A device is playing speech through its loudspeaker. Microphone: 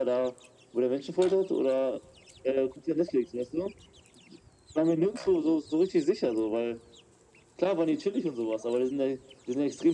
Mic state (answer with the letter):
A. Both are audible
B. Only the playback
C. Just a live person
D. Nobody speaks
B